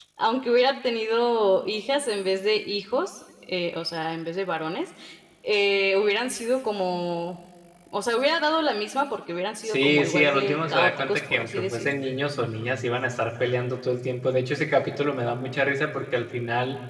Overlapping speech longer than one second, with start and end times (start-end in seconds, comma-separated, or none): 9.6-11.9